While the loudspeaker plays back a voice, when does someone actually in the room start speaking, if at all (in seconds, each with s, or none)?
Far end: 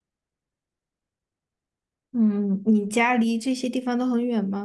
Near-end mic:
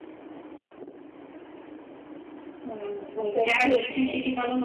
3.0 s